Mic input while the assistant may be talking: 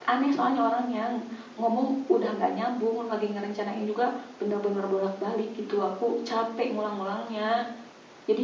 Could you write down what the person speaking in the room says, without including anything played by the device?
none

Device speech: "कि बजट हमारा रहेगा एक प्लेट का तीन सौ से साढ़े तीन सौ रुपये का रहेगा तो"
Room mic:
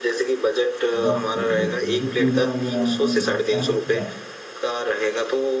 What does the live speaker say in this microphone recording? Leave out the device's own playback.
बस बस बस जैसे पूजा वगैरह में लगता है ना पूरा

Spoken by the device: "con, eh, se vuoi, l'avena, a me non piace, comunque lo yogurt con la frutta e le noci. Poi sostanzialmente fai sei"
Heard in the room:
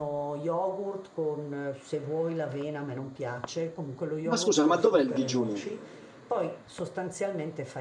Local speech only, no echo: Ma scusa, ma dov'è il digiuno?

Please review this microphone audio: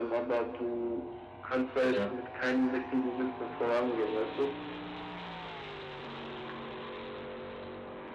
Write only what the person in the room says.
Ja,

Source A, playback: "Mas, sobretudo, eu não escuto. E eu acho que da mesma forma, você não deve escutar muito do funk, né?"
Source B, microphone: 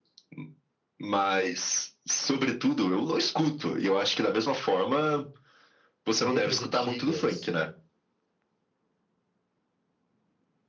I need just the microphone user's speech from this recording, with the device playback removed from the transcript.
letras antigas,

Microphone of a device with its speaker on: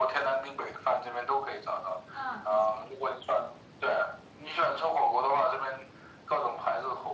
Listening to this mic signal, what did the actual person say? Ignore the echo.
嗯，你去

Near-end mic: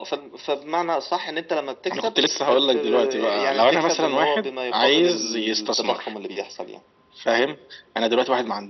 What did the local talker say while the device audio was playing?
none

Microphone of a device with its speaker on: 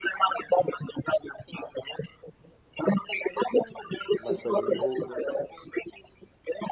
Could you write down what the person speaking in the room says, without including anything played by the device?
Mas para desenvolver mais.

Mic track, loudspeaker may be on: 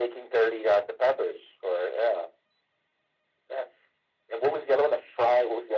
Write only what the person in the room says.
none

